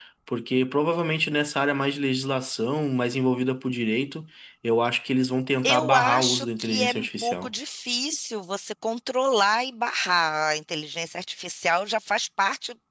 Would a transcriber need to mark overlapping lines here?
Yes, from 5.6 s

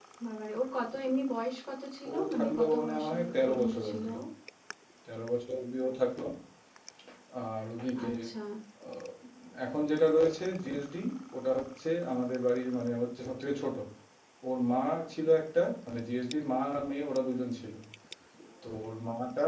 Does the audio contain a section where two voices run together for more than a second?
Yes, from 2.1 s

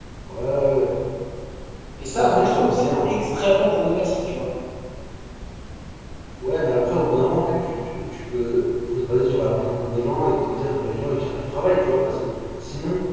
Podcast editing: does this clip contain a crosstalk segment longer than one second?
Yes, from 2.1 s

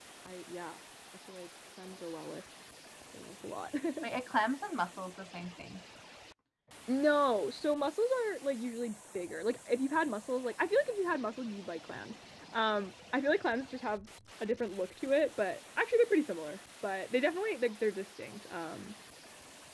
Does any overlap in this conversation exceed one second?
No

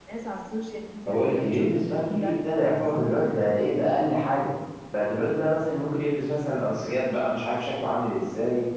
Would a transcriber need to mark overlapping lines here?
Yes, from 1.0 s

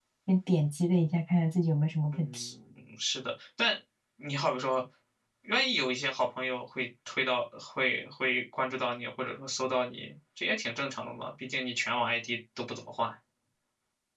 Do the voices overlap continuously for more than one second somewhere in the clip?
No

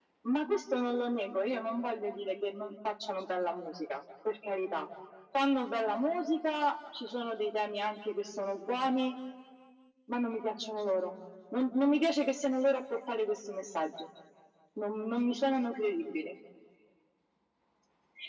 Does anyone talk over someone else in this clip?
No

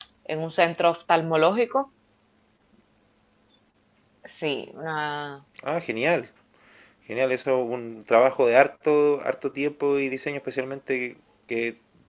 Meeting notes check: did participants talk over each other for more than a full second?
No

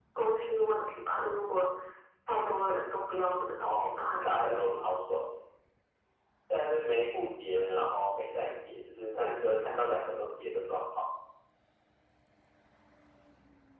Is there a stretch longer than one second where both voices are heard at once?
Yes, from 3.6 s

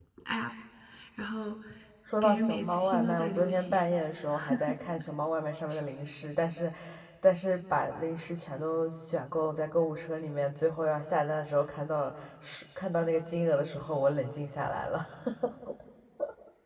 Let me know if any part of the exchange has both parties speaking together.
Yes, from 2.2 s

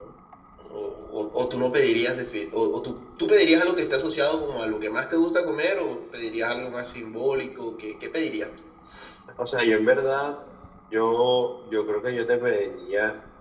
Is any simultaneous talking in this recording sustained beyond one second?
No

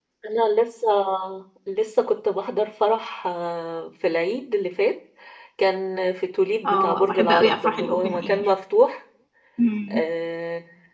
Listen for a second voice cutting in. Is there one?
Yes, from 6.6 s

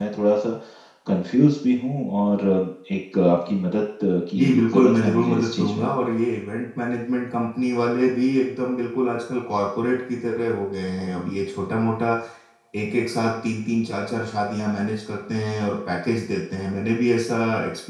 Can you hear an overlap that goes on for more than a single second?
Yes, from 4.3 s

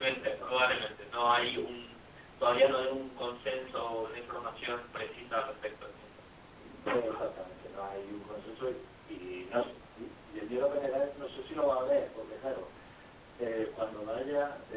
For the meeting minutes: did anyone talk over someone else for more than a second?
No

